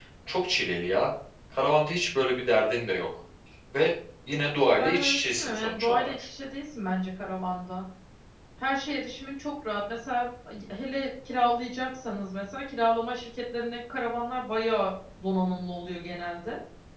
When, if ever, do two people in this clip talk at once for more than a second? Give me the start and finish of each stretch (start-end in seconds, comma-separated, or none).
4.8-6.1